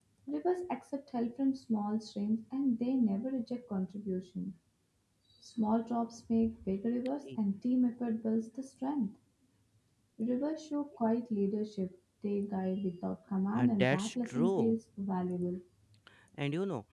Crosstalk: present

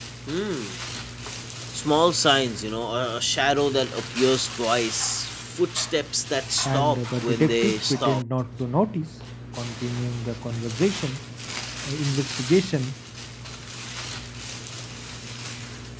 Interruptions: present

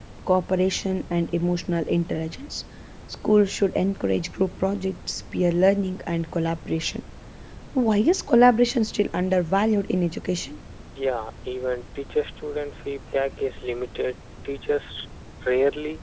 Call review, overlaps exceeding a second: none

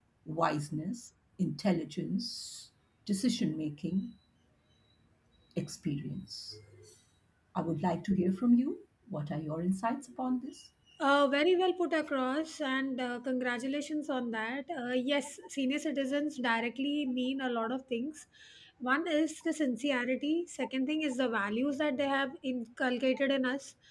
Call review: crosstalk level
none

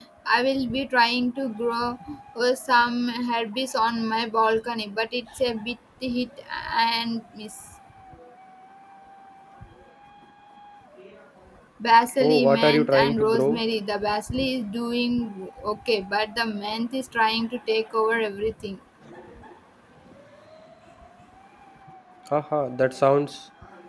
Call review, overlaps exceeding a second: present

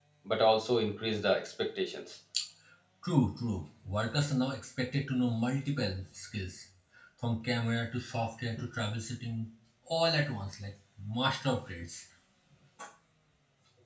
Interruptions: none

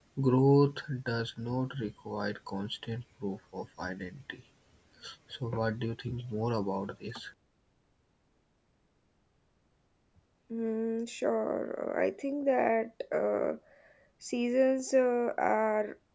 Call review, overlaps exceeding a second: none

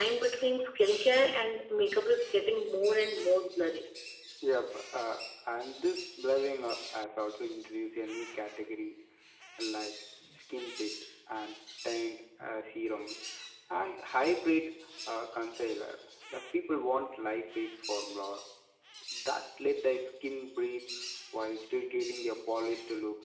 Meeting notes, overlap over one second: none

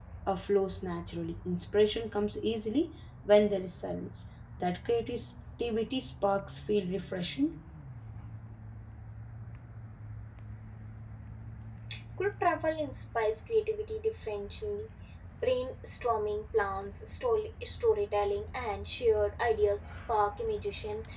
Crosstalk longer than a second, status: none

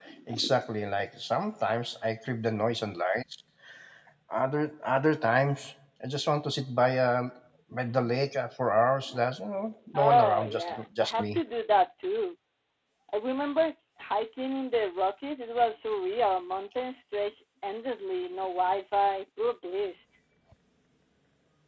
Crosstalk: present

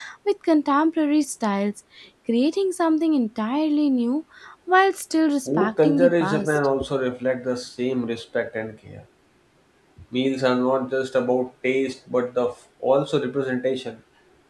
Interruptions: present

